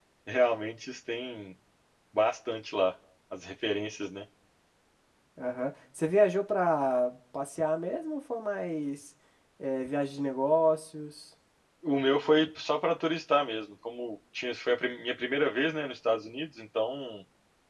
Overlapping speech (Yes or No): No